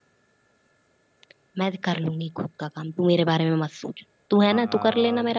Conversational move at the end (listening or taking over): taking over